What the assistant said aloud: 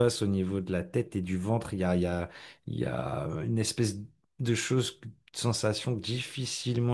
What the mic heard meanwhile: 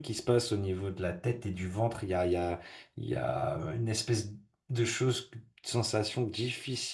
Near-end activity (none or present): none